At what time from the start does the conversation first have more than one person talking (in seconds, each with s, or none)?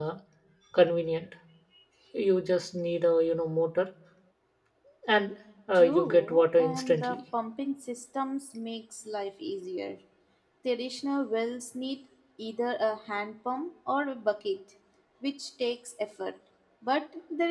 5.7 s